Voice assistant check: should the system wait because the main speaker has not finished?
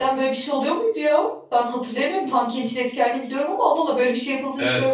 No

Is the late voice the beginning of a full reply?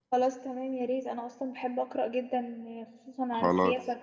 Yes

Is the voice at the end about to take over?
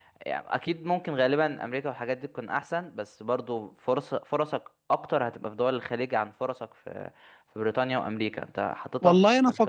Yes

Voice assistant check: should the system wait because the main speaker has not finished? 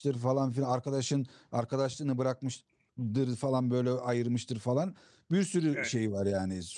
Yes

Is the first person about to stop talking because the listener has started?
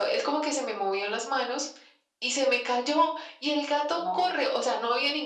No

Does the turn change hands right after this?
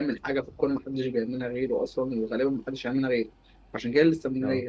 No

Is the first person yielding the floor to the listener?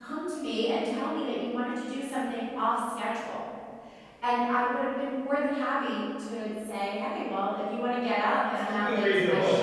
Yes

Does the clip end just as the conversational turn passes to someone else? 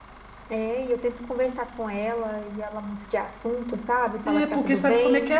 Yes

